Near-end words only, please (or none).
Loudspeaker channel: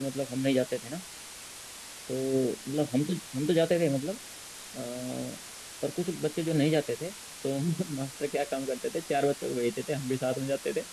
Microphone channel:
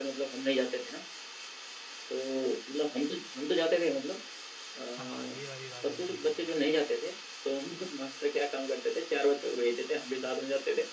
हाँ ये वाली बात बिल्कुल सही है